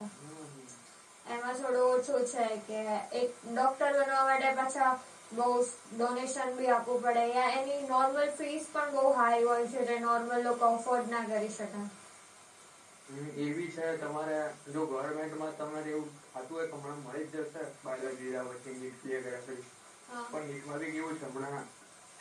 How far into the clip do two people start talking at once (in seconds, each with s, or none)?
none